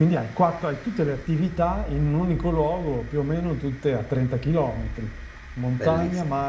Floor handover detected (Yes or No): No